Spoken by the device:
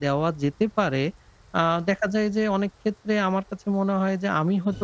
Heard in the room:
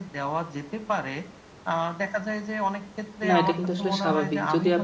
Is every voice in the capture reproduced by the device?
No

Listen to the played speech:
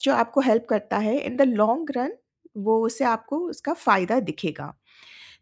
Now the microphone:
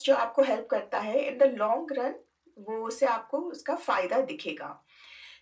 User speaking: No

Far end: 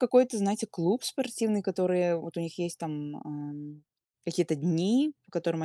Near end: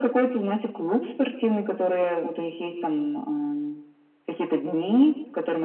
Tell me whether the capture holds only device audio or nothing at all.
Yes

